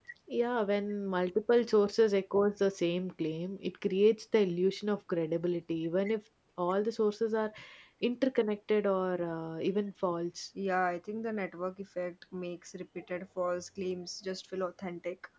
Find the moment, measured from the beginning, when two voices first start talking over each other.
none

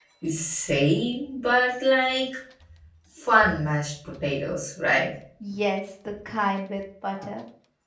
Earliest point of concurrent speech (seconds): none

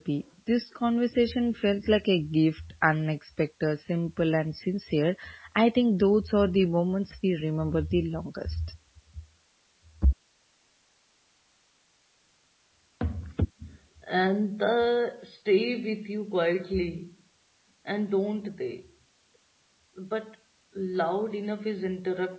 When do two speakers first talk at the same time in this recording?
none

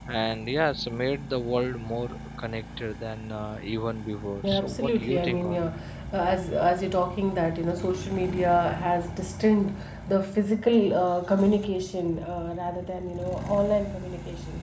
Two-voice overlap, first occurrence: 4.4 s

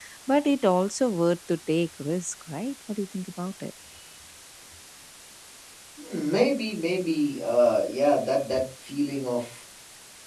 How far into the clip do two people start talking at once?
none

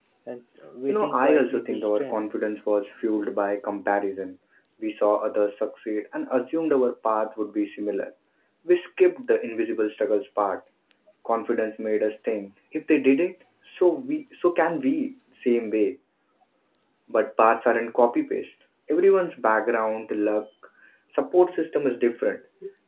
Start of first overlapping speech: 0.9 s

